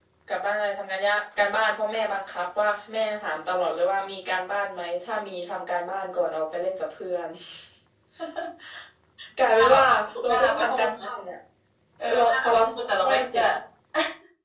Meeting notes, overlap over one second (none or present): present